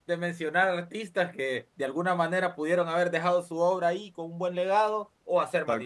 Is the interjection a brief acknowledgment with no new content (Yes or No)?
Yes